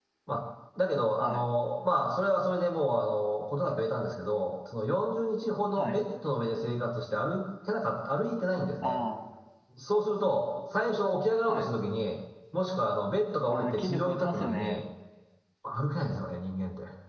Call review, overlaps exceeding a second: present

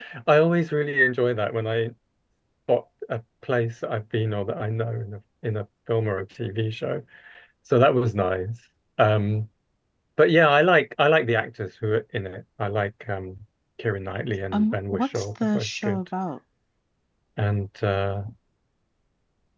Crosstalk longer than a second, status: present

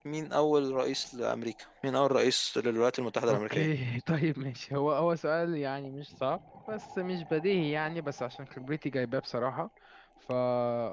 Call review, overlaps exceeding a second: none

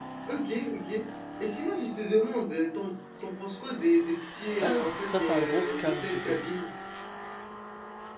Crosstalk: present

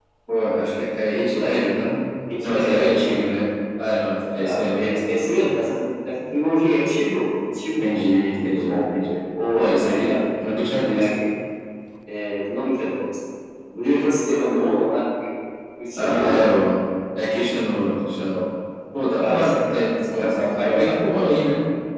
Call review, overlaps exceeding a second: present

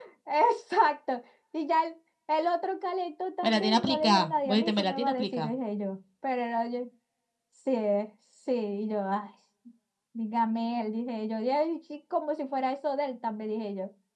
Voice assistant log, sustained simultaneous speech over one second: present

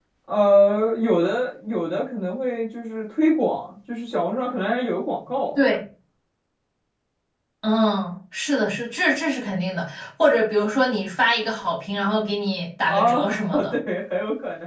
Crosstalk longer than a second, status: none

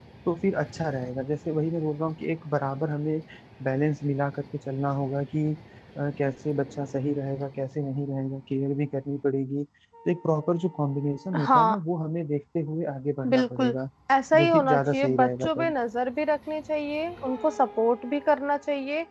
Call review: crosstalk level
present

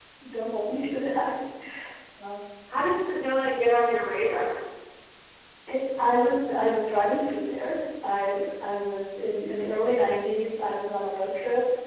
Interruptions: none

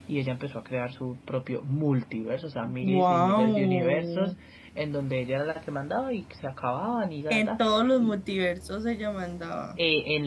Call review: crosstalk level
present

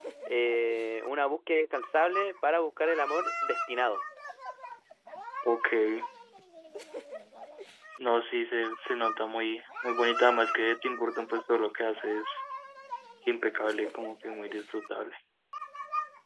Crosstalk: none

